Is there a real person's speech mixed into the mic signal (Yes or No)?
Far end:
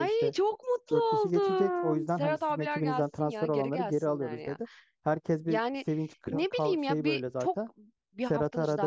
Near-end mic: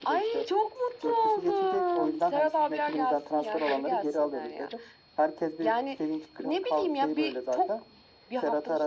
No